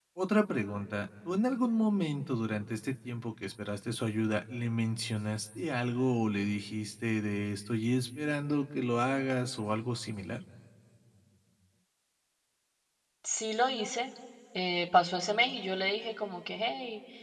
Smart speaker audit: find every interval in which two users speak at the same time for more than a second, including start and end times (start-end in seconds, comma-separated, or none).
none